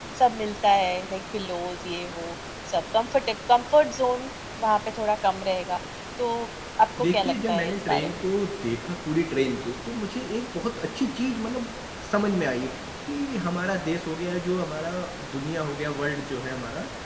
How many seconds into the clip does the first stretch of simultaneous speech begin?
7.0 s

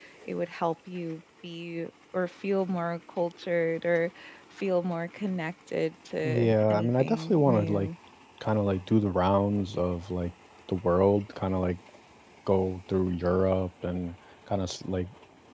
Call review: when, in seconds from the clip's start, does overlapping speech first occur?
6.2 s

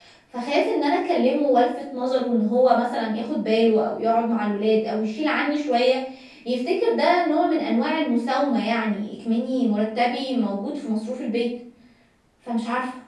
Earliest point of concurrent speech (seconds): none

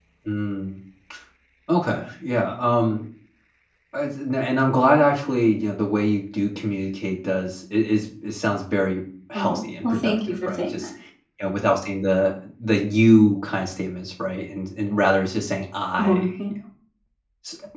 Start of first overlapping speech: 9.3 s

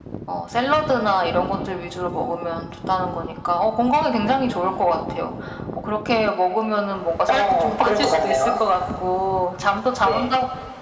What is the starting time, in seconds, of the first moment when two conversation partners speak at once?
7.3 s

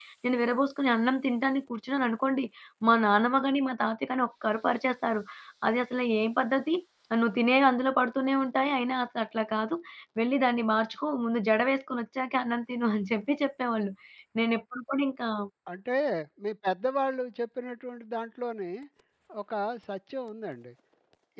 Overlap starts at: none

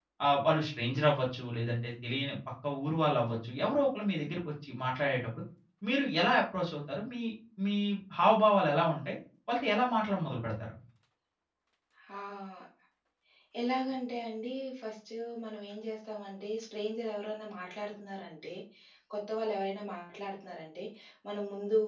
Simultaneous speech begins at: none

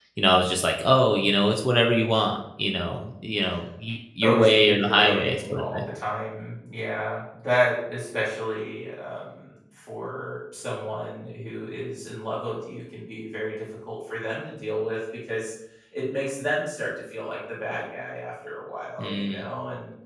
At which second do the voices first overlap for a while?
4.2 s

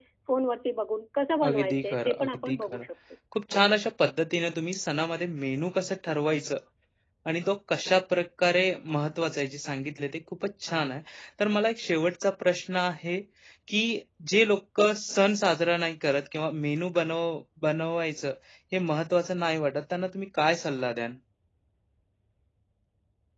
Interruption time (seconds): 1.4 s

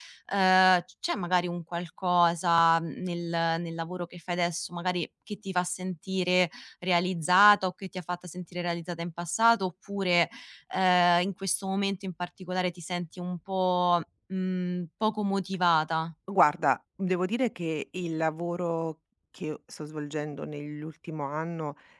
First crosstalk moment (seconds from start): none

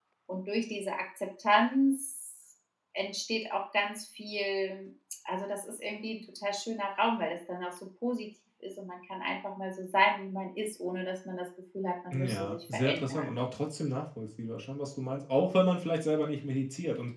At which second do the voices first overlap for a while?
12.1 s

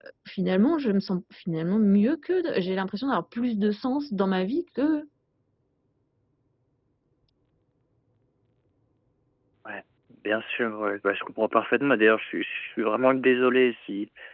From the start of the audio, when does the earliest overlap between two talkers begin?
none

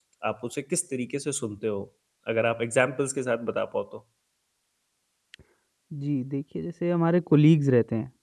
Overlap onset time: none

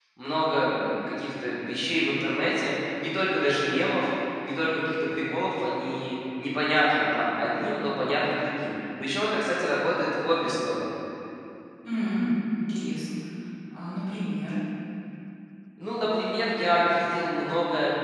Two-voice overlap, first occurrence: none

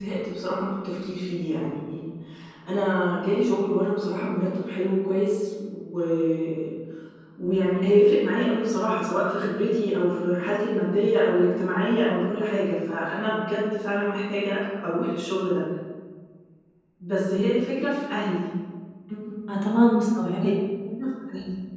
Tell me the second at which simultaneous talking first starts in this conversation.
none

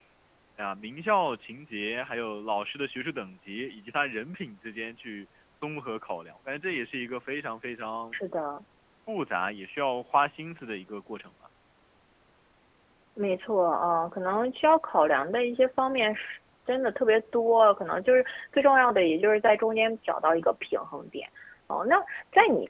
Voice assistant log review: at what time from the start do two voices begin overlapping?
none

